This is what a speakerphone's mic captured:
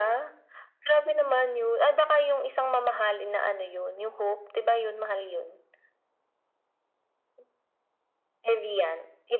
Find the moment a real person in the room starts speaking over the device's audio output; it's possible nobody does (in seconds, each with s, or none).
none